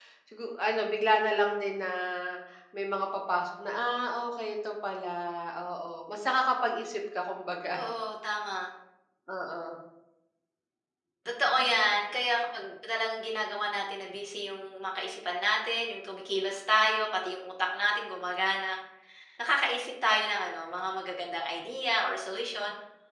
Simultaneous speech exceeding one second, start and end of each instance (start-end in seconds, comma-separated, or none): none